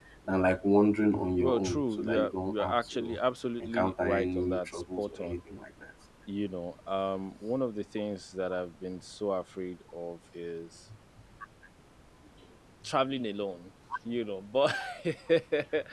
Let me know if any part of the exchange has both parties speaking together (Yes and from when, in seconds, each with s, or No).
Yes, from 1.4 s